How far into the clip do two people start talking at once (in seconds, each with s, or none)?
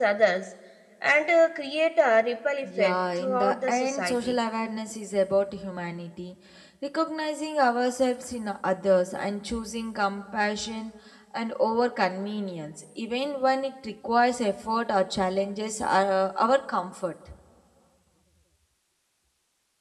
2.6 s